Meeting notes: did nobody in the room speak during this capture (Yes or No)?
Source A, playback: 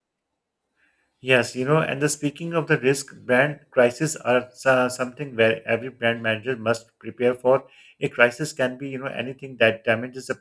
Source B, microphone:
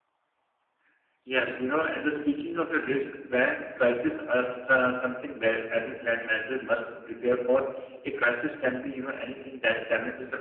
Yes